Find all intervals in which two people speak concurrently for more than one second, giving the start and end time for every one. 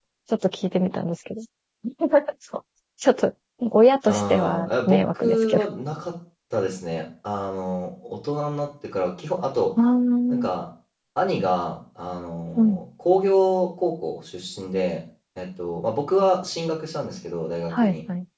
4.1-5.6

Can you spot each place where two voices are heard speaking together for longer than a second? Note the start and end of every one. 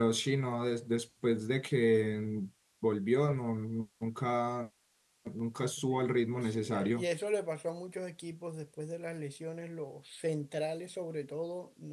5.8-7.0

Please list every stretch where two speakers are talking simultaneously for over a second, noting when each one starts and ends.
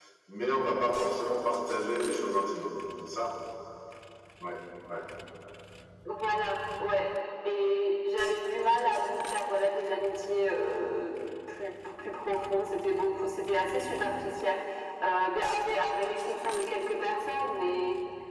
none

